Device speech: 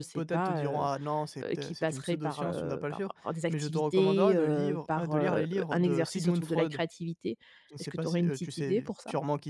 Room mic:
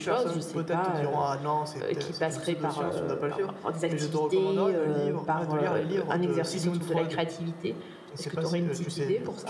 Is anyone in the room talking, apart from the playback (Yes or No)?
No